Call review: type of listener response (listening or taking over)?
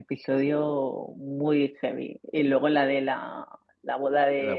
listening